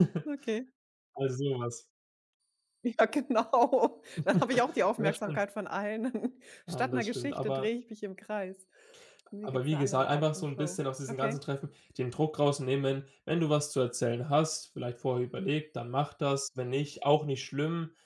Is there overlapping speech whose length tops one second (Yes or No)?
Yes